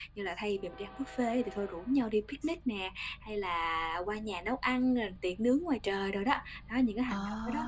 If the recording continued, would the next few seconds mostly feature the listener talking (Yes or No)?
No